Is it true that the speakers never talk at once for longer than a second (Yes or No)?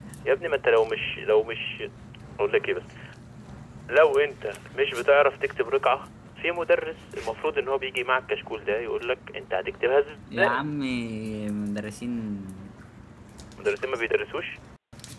Yes